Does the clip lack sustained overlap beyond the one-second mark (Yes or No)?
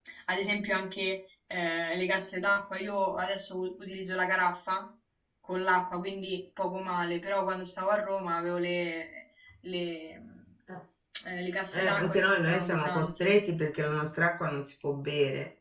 No